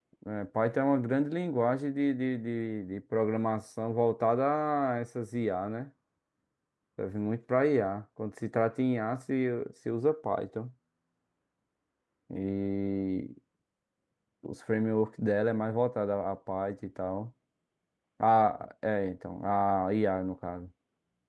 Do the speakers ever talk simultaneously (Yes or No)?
No